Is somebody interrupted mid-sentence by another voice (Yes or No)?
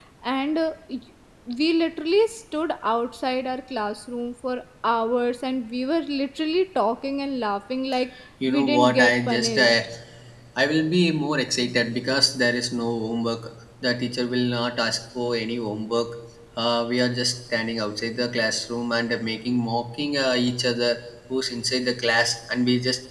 Yes